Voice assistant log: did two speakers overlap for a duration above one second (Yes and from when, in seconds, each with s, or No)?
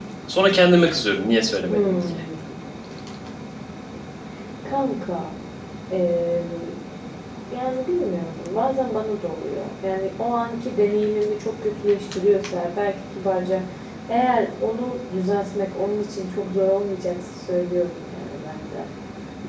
No